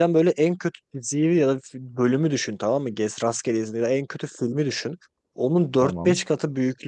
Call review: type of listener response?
listening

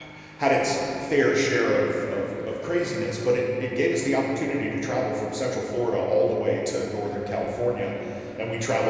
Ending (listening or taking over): listening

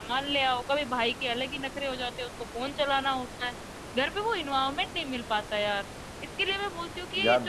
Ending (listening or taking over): listening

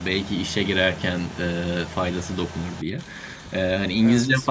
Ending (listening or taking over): listening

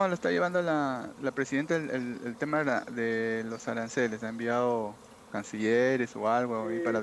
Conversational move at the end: taking over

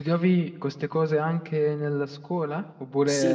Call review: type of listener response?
taking over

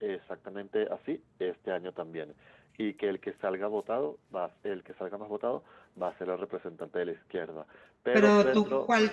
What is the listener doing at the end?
taking over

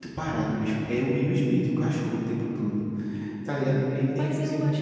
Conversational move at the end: taking over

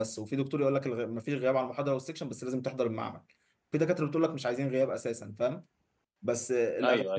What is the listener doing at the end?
listening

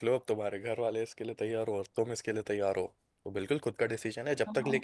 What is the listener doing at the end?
listening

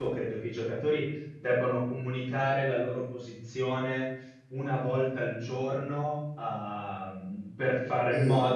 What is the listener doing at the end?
listening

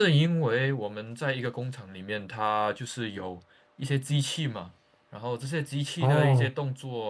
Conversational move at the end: listening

